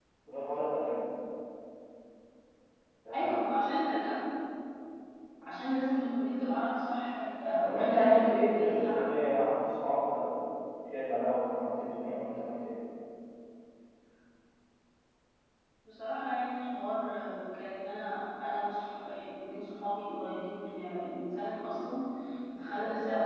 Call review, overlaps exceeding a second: present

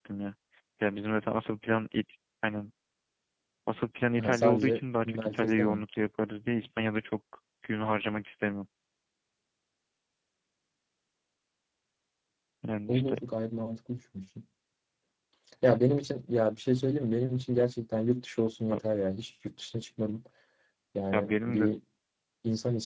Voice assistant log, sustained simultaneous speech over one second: present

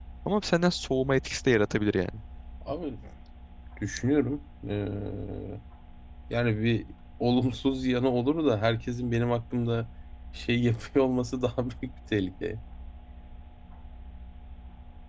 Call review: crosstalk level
none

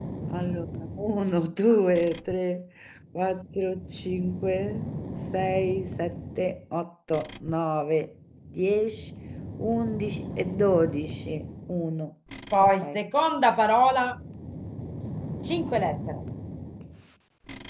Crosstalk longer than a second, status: none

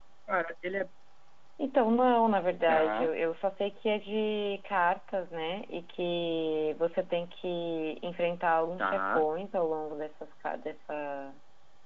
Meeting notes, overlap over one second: none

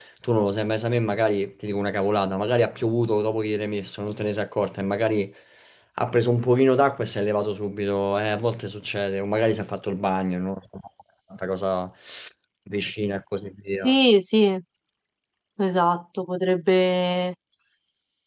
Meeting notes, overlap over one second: none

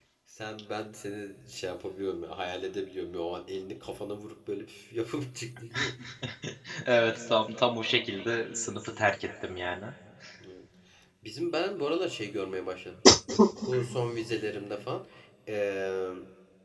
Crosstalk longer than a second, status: none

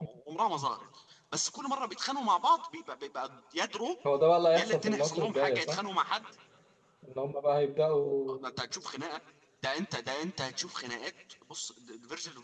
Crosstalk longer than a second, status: present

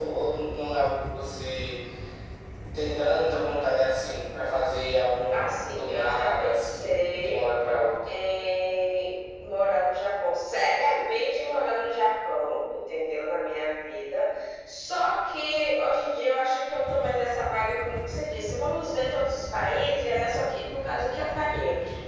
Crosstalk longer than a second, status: present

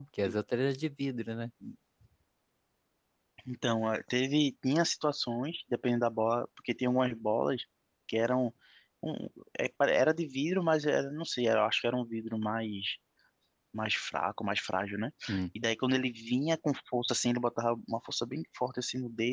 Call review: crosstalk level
none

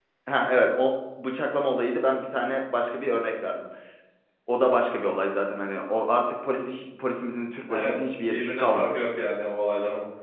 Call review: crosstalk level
present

